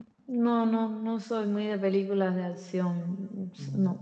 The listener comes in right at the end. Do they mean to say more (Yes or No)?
No